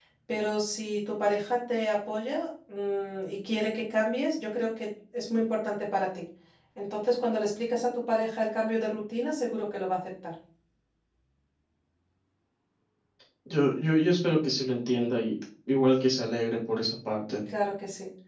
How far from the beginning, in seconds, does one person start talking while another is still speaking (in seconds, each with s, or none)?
none